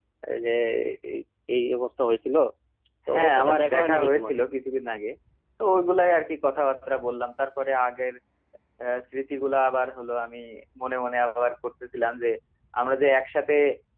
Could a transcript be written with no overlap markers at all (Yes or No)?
No